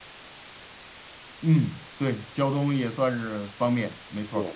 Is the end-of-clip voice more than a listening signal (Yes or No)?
Yes